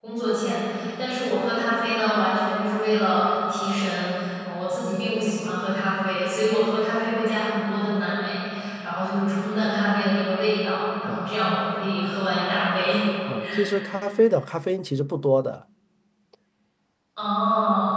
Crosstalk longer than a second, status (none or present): none